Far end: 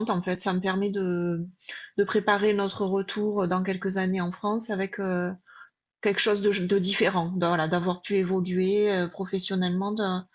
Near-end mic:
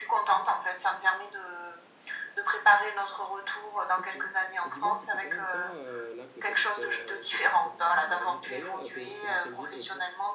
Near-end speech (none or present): present